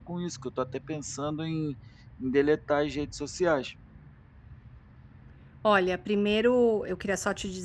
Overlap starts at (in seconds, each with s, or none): none